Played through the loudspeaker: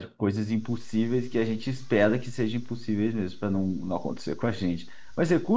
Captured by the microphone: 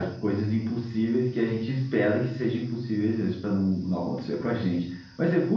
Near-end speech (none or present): none